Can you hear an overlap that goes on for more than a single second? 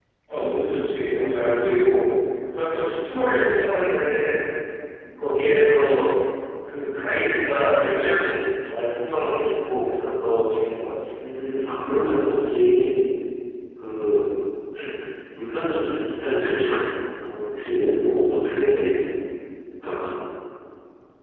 No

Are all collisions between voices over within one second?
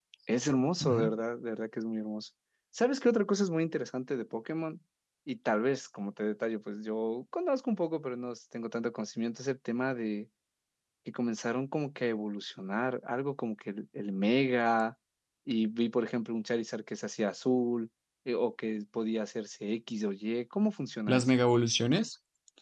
Yes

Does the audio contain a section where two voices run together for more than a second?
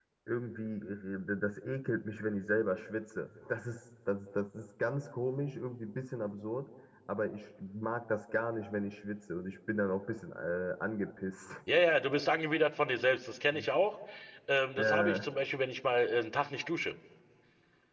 No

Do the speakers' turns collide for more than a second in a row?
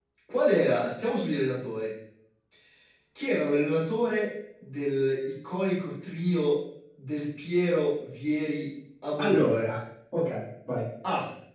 No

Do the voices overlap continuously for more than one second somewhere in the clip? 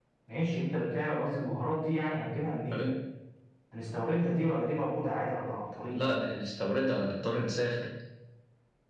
No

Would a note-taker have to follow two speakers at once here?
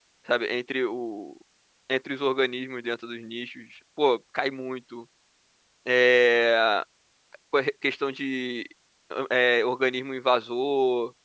No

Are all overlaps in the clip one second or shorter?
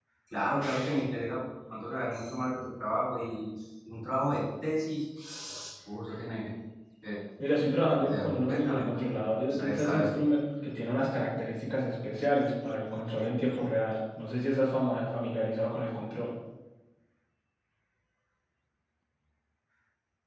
No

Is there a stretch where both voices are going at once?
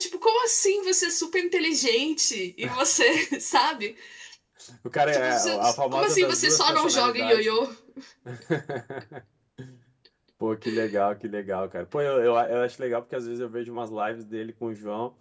Yes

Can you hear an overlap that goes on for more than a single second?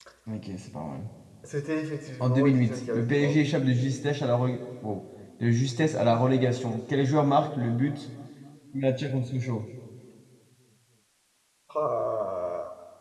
Yes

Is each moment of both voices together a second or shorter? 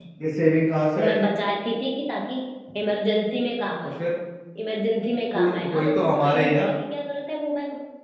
No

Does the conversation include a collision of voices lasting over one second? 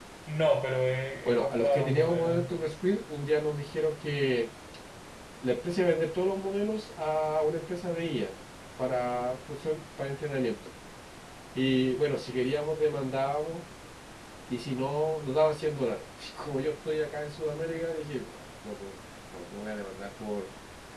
Yes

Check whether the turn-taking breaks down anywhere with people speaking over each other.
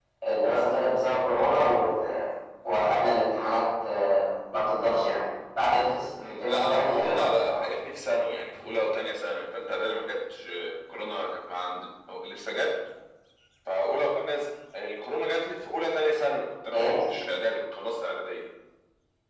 Yes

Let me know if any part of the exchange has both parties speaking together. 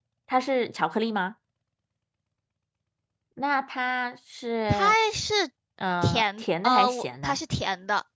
Yes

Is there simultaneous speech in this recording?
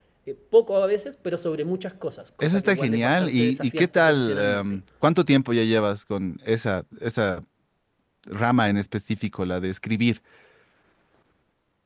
Yes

